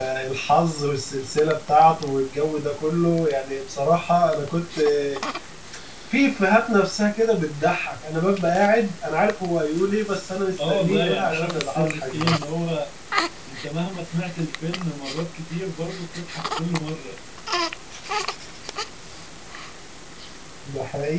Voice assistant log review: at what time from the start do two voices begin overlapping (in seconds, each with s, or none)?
10.6 s